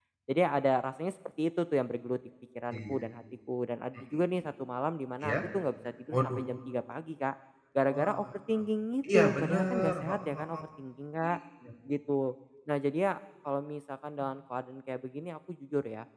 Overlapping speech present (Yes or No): Yes